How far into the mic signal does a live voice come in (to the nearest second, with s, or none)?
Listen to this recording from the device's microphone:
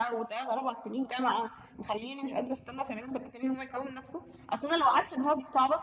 none